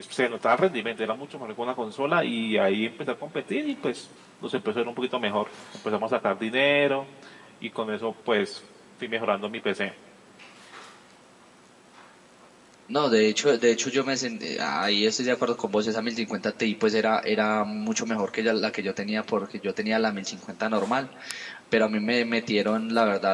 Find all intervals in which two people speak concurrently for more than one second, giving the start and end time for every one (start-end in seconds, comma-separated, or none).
none